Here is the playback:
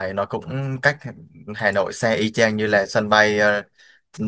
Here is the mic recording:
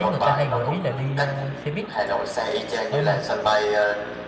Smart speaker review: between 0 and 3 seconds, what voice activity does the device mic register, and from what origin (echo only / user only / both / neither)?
both